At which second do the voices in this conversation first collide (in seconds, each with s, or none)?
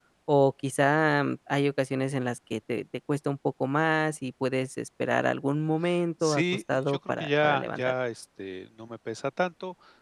6.2 s